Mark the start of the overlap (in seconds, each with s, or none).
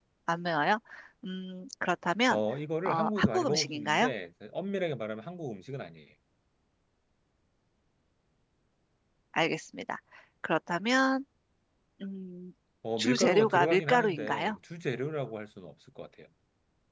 2.9 s